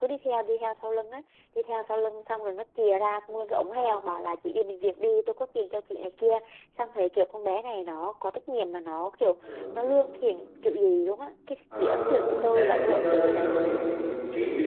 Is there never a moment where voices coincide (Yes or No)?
No